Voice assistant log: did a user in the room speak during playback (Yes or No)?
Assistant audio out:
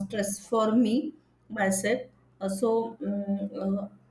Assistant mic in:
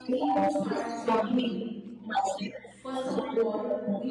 Yes